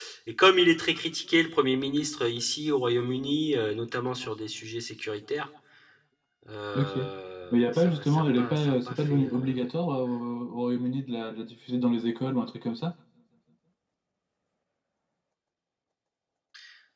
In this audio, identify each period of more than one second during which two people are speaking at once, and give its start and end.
7.5-9.6

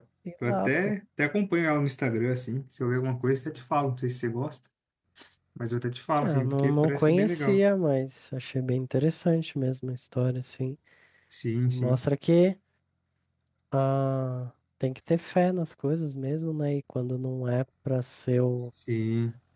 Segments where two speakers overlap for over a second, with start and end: 6.2-7.6

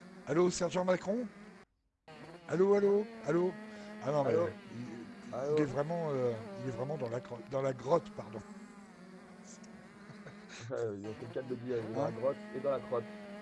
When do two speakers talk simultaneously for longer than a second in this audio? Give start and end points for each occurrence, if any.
none

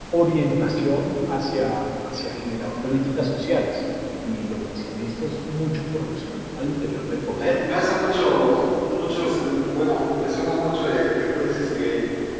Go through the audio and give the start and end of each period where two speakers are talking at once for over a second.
none

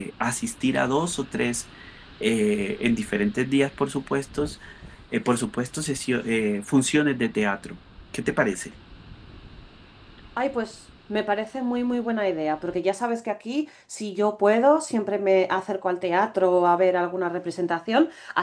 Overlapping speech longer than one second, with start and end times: none

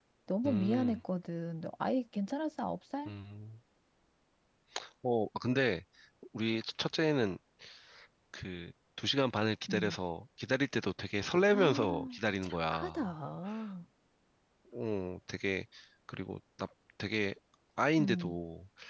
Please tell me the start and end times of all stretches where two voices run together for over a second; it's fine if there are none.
11.5-13.0

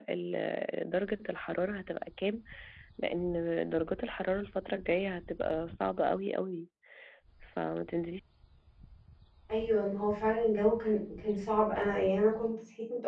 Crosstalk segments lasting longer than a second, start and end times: none

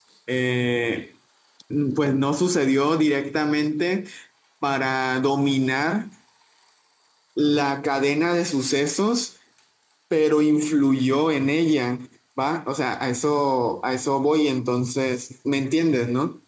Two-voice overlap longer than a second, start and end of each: none

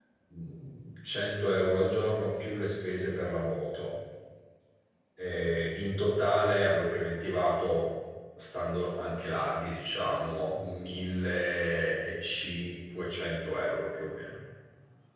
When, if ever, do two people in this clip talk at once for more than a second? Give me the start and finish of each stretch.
none

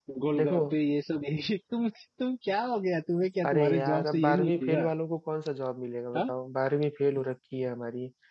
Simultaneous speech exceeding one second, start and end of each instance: 3.4-4.9

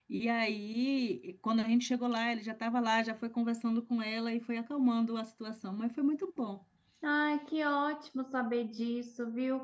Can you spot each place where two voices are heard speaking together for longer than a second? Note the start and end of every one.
none

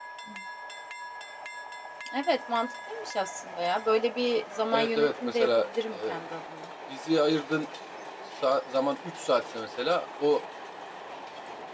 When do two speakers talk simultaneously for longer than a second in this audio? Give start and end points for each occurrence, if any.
4.7-6.2

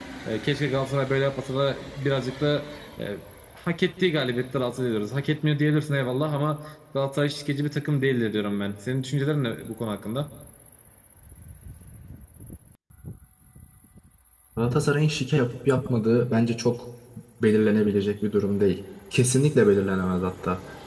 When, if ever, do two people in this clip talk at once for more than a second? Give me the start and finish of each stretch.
none

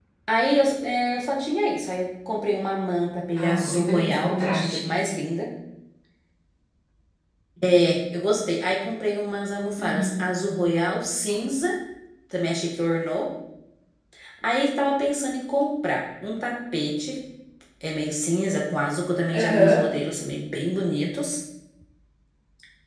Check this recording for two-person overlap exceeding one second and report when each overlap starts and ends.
3.4-4.9

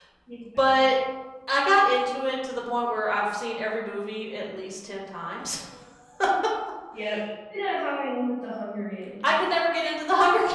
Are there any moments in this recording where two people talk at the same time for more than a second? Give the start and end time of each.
none

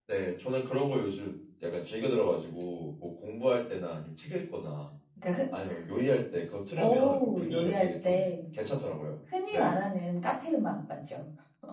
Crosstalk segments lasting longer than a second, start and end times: 6.8-8.3

